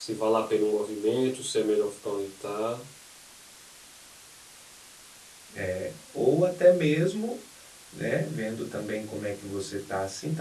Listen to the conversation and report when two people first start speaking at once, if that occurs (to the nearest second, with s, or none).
none